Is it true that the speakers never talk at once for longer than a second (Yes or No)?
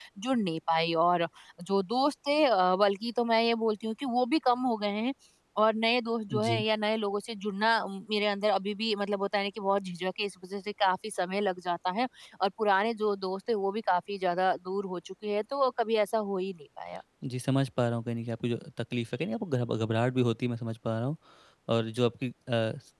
Yes